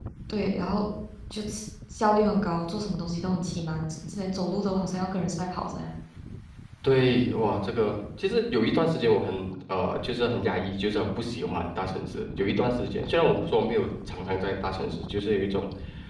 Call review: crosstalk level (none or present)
none